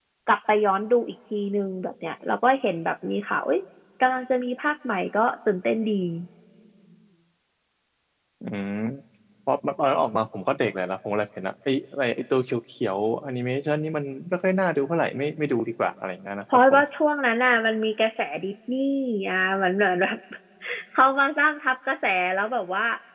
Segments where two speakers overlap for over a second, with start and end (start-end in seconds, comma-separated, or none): none